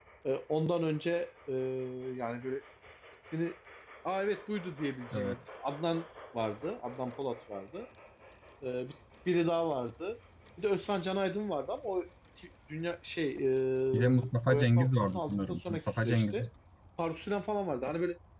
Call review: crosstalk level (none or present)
present